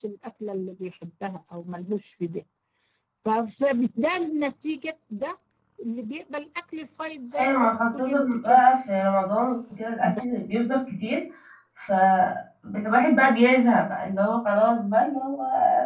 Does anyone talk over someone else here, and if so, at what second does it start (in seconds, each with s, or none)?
7.4 s